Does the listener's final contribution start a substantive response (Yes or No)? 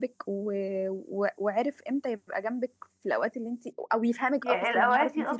Yes